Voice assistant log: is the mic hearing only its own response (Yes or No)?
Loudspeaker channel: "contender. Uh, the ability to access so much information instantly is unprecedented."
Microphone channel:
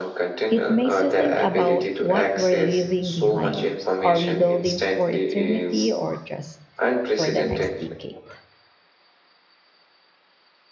No